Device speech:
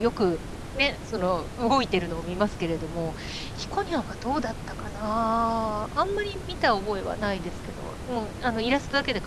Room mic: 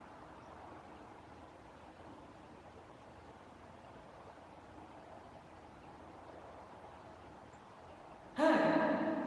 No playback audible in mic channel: Yes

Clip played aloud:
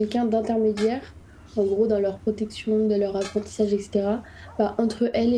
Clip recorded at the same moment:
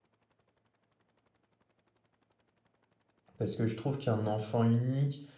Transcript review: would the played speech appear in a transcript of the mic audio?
No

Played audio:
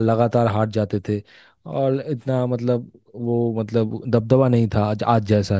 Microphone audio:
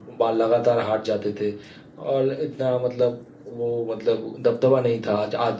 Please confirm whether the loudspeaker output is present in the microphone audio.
Yes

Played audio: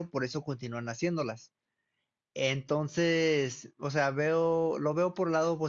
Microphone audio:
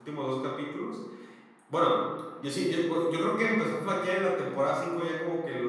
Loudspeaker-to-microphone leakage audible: No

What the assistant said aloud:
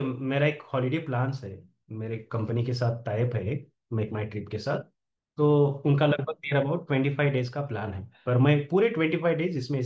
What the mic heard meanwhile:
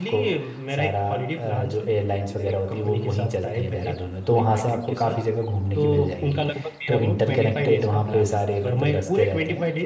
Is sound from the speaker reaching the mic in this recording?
Yes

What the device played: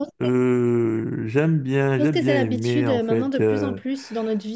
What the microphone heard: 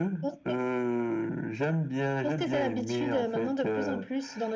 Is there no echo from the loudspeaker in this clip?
No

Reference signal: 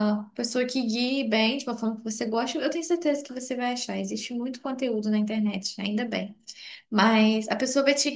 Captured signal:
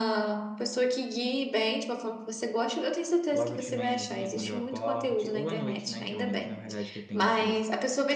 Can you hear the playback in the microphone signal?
Yes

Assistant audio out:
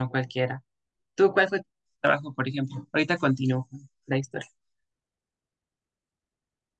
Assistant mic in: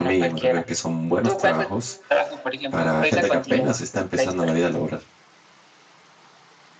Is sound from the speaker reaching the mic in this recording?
Yes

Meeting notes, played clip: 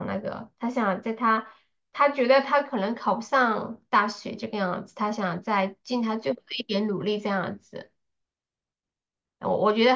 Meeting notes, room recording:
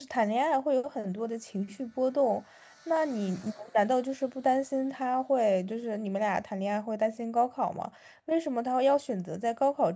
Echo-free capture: Yes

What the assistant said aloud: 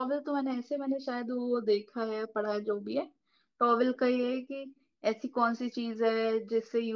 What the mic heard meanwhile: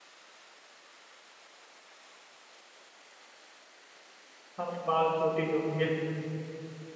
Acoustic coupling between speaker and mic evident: No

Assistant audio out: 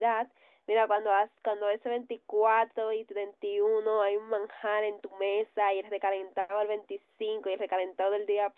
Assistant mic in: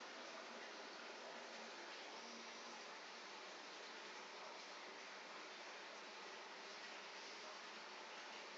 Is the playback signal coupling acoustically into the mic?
No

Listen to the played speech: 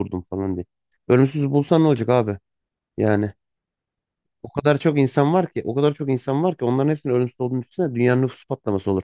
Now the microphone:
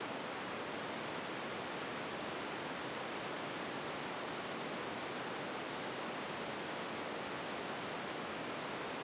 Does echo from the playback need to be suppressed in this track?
No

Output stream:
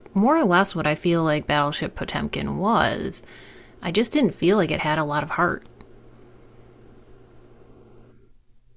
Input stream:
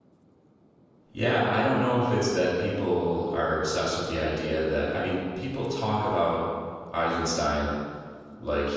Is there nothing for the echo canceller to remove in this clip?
Yes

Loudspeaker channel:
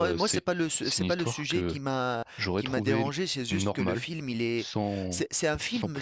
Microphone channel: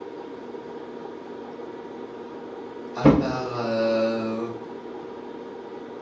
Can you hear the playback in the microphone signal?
No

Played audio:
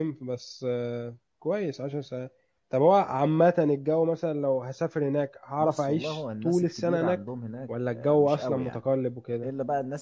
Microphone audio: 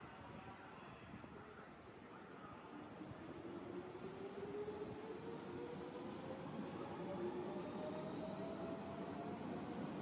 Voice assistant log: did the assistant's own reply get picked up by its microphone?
No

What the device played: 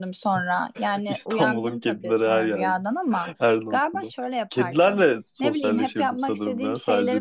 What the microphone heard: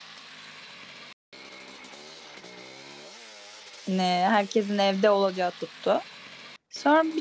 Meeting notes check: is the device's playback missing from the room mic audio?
Yes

